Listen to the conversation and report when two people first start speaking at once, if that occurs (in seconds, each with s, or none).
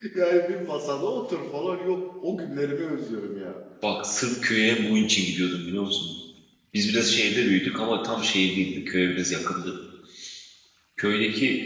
none